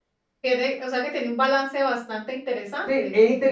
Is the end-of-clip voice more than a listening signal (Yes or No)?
Yes